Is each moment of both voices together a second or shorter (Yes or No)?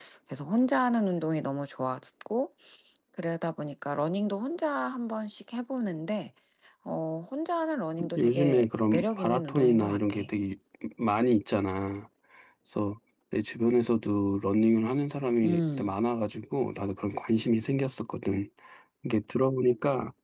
No